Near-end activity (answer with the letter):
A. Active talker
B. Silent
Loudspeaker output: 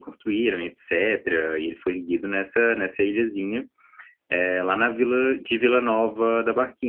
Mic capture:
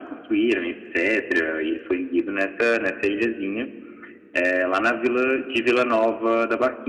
B